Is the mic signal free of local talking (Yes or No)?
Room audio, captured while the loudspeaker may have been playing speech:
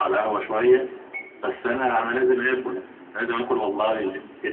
Yes